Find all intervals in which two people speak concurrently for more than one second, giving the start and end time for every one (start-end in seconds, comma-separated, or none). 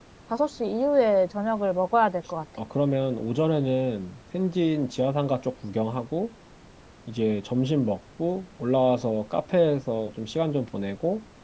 none